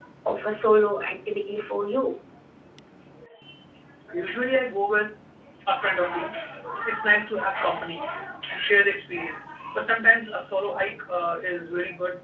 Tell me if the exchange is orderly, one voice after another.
Yes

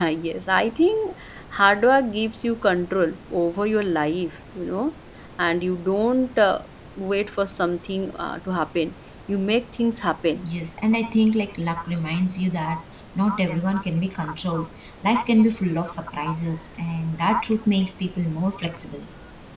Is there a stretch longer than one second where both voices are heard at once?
No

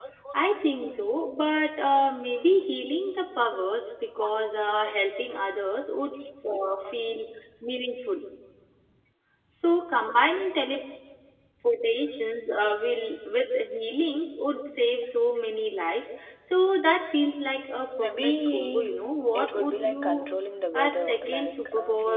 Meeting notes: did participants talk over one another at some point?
Yes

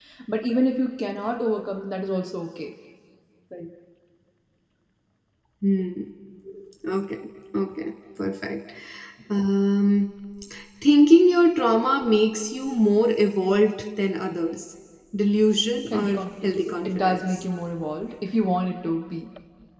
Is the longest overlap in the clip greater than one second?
Yes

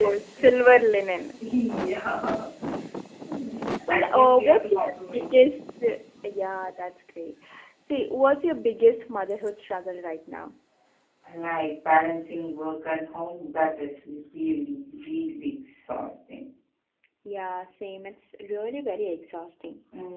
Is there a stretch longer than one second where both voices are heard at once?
Yes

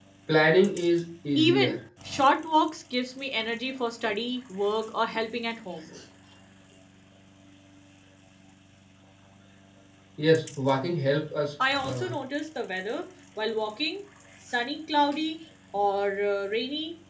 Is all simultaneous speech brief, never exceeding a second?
Yes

